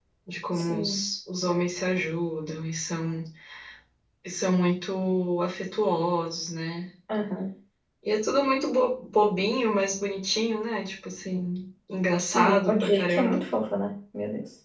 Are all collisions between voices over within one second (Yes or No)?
No